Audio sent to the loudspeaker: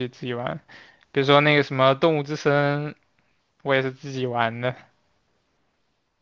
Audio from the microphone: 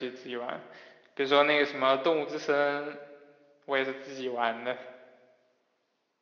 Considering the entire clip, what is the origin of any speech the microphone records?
echo only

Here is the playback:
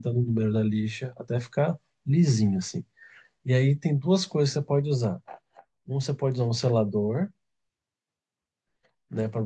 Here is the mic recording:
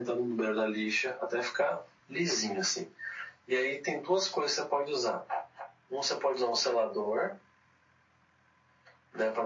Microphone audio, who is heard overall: echo only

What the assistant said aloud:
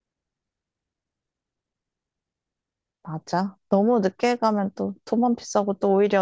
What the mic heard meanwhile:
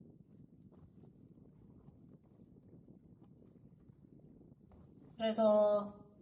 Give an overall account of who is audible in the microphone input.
user only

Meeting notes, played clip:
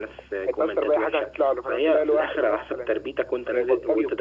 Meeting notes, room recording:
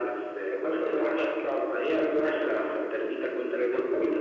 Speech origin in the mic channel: echo only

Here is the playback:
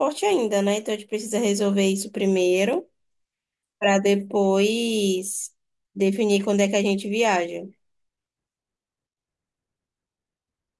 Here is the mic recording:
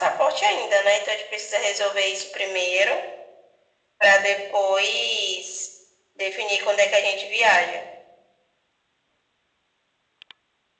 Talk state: echo only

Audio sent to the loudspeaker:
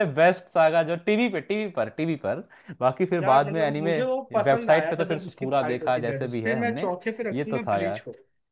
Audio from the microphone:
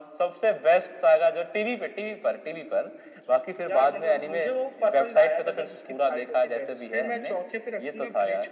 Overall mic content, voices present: echo only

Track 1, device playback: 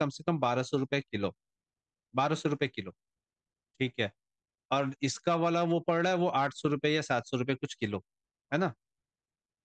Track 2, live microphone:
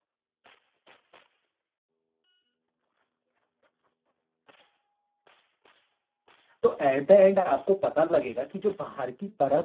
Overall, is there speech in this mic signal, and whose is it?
user only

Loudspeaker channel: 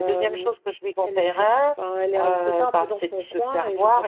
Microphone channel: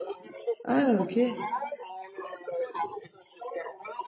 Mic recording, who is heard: both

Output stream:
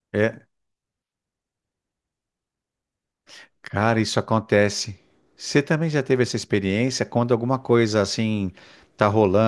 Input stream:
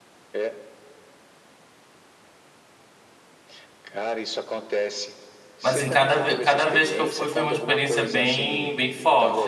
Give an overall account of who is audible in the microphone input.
both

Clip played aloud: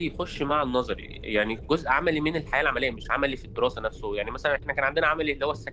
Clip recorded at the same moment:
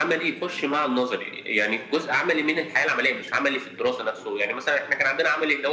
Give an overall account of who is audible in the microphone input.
echo only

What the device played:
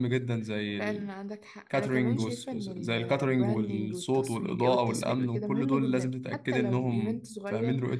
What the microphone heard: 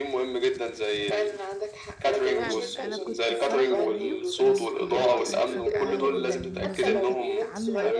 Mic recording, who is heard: both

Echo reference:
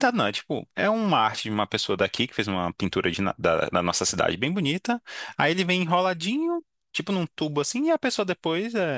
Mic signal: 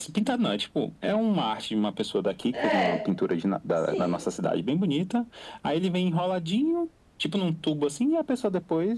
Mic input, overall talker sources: both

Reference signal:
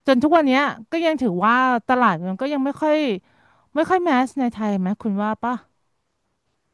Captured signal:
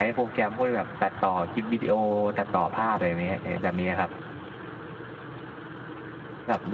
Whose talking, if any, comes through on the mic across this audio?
user only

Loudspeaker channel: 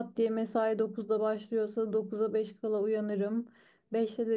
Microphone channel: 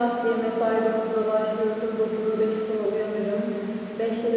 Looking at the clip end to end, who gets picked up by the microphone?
echo only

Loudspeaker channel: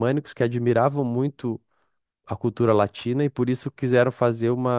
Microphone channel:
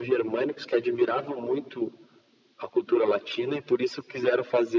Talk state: echo only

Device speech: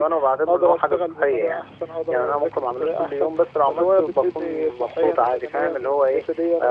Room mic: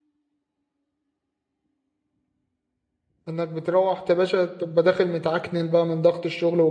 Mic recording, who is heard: user only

